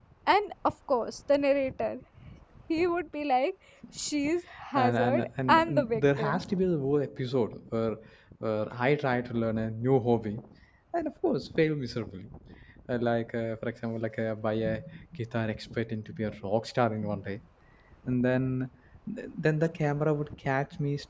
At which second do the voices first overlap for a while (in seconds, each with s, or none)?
4.8 s